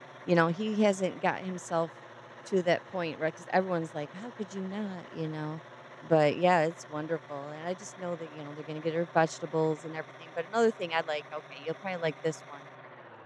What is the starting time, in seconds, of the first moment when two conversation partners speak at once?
none

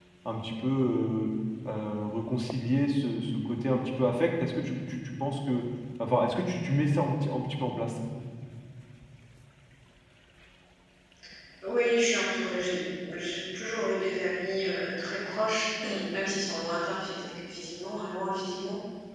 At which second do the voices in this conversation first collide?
none

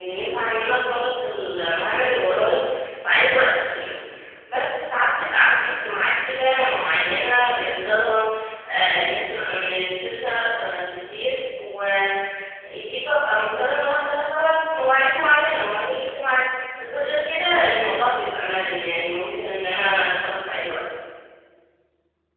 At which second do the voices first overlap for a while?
none

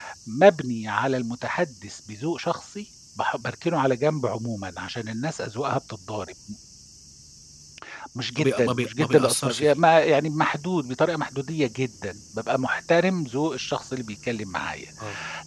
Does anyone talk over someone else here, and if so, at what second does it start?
8.4 s

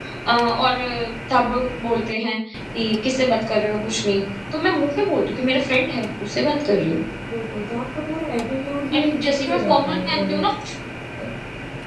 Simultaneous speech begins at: 8.9 s

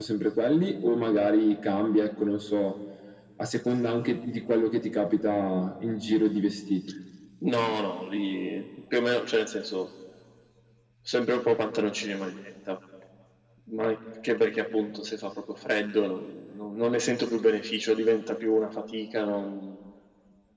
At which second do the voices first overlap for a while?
none

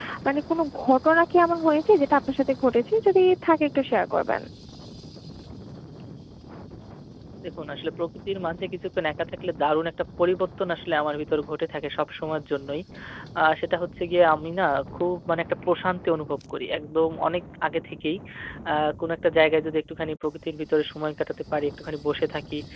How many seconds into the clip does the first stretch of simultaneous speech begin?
none

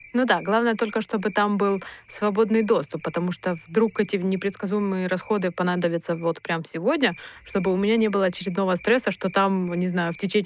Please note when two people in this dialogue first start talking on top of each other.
none

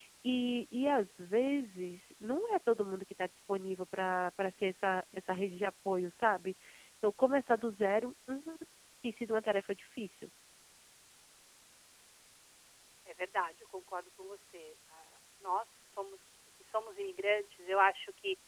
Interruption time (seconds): none

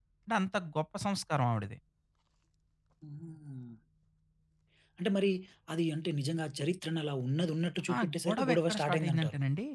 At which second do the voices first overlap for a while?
7.9 s

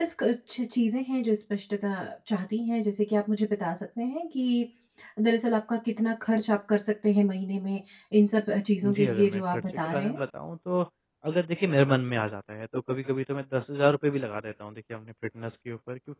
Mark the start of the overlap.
8.8 s

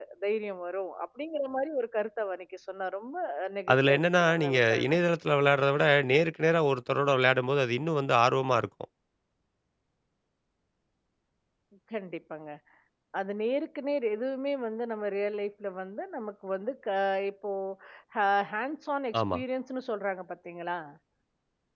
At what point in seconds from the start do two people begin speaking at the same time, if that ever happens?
3.7 s

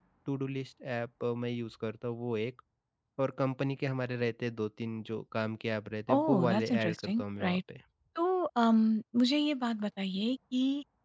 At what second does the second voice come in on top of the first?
6.1 s

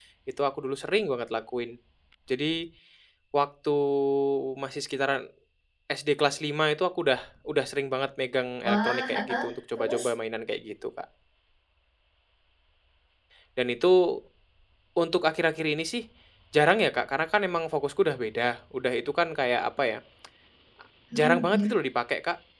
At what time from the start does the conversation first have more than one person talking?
8.6 s

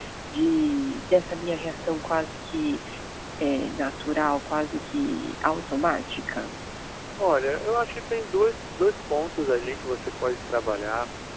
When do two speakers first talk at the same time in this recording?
none

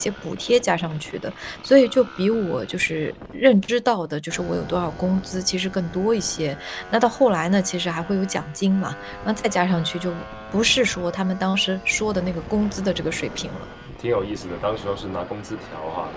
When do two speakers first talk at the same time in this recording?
none

